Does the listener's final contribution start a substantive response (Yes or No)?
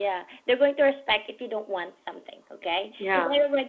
No